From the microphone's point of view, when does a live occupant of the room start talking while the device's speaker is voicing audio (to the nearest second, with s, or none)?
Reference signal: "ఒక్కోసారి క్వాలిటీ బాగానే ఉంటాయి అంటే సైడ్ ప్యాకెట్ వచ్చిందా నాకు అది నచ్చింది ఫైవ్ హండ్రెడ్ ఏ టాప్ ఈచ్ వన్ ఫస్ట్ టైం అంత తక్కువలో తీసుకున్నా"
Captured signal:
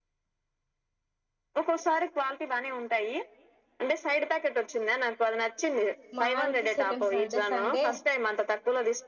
6 s